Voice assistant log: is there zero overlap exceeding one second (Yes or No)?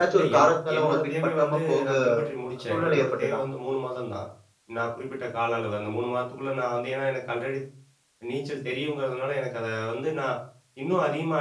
No